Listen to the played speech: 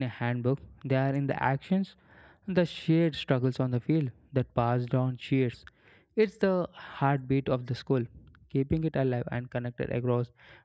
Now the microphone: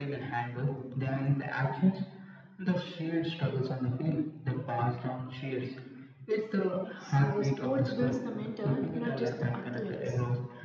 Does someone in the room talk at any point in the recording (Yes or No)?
Yes